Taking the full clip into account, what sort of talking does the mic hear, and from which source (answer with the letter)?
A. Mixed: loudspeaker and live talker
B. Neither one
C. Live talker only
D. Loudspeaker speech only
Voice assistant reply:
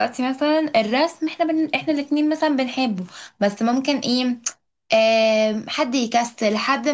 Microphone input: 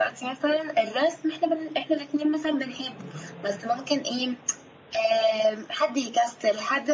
D